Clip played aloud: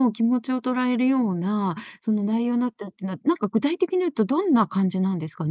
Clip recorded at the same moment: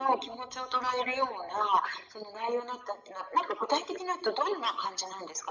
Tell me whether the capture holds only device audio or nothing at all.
Yes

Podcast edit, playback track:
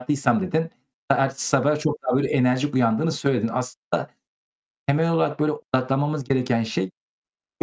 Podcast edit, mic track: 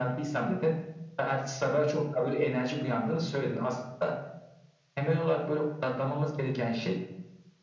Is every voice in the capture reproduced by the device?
Yes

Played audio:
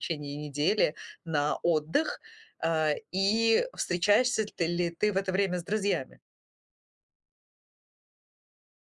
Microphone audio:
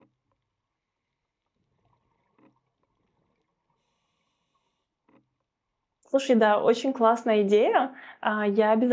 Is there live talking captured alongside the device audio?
Yes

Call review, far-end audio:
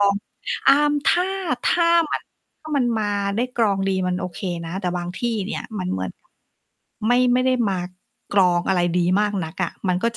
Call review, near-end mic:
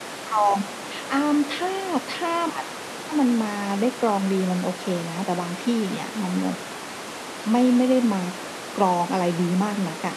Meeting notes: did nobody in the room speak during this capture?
Yes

